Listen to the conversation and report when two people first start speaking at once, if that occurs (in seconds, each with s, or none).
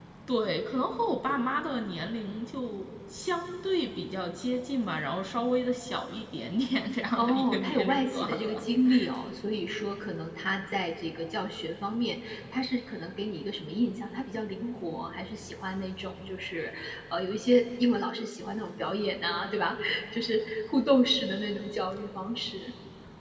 7.2 s